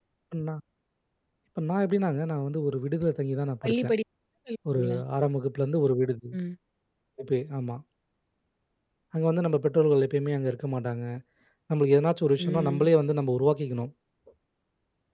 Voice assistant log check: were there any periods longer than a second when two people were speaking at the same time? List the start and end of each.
none

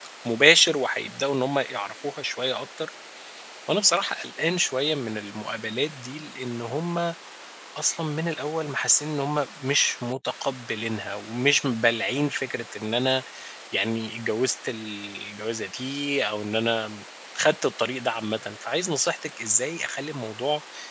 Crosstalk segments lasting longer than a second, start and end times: none

